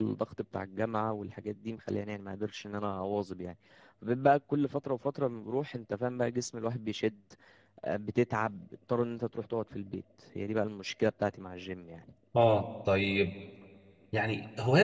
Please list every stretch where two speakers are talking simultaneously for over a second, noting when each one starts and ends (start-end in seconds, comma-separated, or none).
none